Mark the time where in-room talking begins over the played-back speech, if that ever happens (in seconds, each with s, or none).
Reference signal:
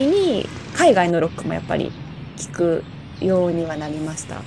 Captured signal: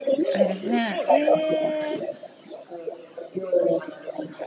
0.3 s